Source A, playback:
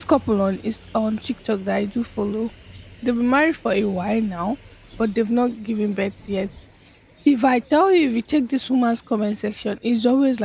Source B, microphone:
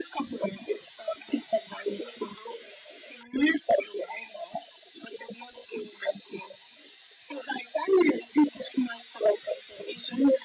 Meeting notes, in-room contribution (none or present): none